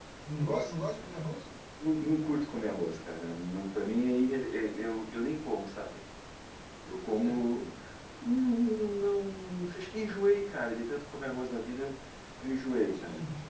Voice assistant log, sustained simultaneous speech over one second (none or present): none